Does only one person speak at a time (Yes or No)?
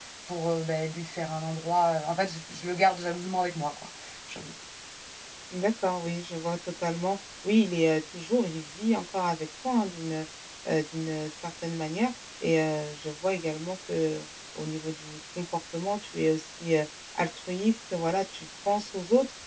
Yes